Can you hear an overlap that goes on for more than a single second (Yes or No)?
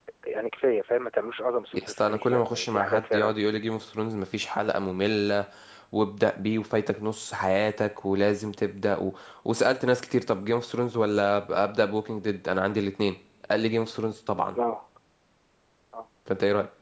Yes